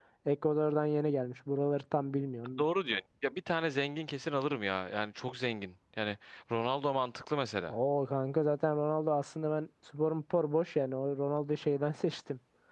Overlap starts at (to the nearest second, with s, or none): none